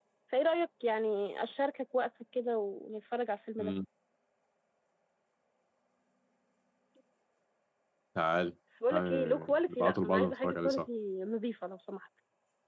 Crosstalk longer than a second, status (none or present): present